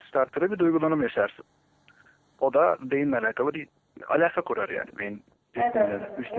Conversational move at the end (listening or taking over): taking over